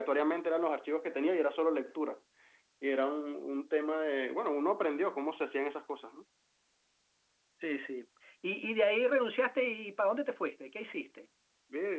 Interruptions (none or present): none